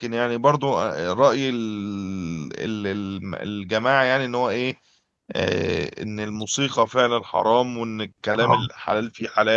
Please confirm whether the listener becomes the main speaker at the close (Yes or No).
No